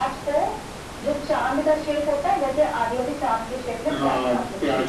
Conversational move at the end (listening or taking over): taking over